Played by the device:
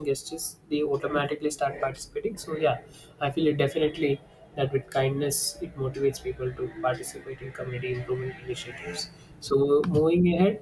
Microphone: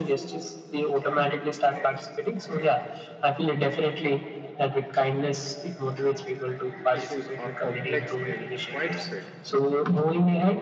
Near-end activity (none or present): present